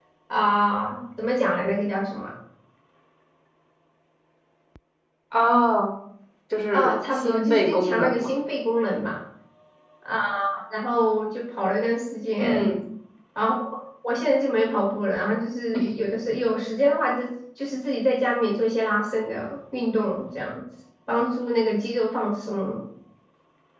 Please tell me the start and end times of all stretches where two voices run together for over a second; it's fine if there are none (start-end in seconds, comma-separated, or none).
6.7-8.3